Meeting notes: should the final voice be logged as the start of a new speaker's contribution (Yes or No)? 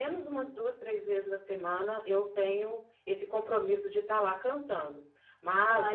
No